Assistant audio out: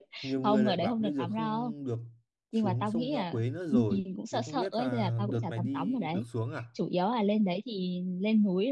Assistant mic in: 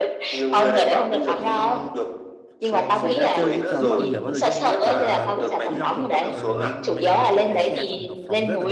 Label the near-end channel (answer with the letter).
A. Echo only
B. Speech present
B